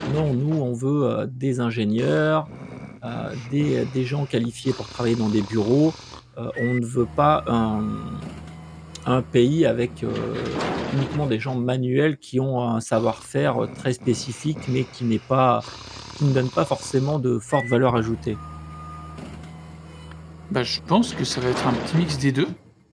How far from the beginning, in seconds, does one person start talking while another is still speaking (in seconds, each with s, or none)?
none